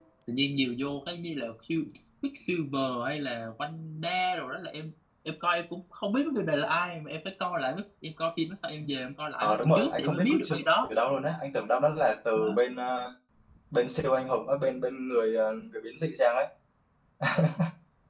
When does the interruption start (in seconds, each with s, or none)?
9.4 s